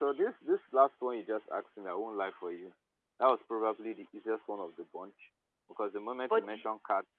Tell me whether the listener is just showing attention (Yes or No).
Yes